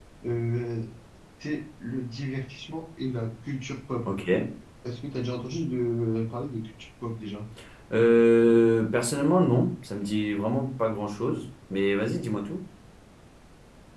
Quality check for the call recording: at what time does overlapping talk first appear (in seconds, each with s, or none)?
none